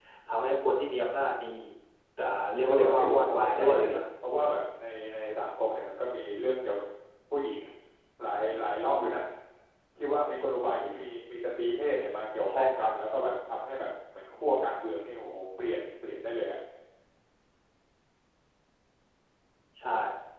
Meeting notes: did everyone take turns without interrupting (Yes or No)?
No